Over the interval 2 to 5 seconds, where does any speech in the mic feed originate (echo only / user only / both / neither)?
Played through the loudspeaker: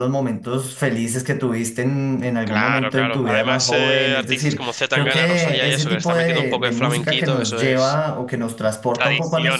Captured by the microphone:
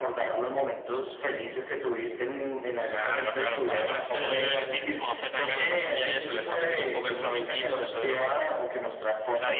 echo only